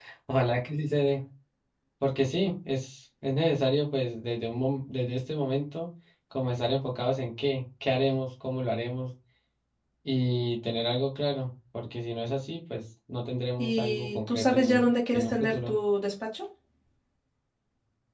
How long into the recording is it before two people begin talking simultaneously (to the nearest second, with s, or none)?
14 s